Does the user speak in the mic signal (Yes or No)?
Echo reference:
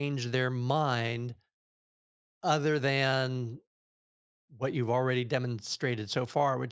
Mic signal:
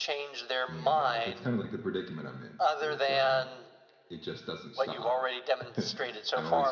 Yes